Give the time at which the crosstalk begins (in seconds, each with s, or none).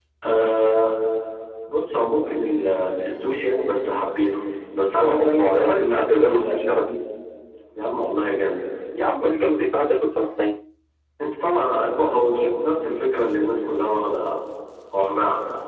5.0 s